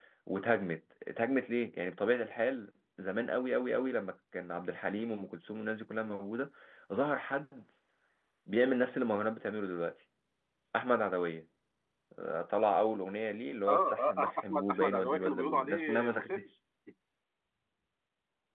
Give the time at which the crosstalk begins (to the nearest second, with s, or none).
14 s